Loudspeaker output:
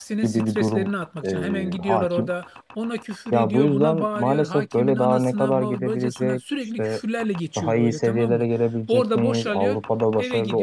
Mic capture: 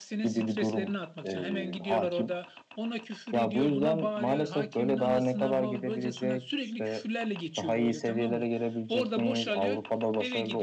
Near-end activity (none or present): none